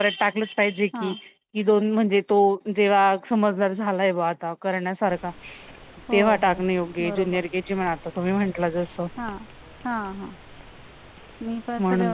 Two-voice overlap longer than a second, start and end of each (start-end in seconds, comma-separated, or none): none